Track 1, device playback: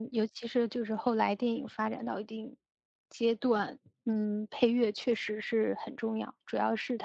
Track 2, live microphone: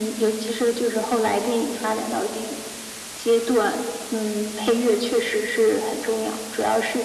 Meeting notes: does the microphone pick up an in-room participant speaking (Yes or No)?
No